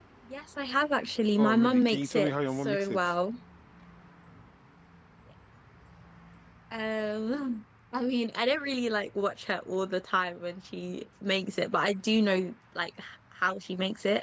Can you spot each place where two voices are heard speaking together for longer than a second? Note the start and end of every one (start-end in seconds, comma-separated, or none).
1.4-3.0